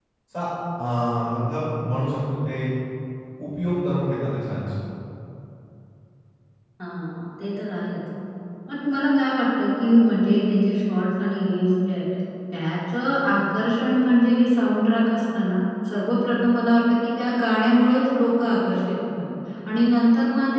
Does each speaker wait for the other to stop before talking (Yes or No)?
Yes